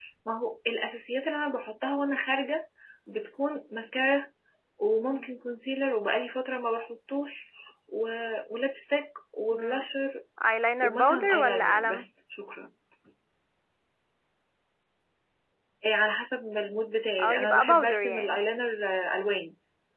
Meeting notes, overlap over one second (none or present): present